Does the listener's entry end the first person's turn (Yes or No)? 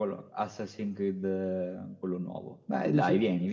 Yes